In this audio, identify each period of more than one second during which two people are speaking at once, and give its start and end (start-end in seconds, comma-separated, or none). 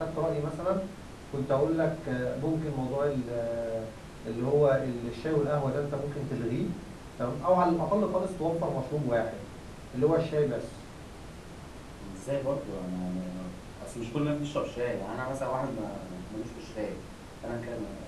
none